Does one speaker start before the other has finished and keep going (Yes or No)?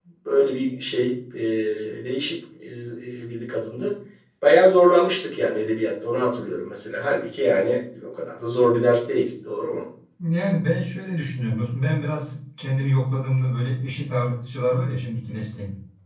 No